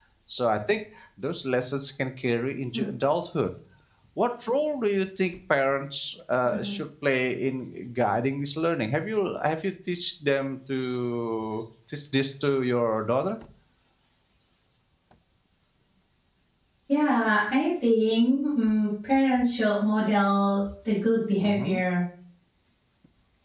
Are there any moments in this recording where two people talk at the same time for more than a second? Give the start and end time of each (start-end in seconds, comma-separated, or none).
none